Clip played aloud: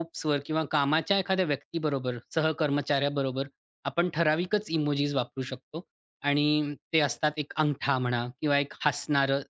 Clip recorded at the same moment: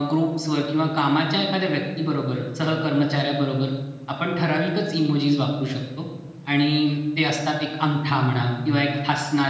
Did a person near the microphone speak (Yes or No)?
No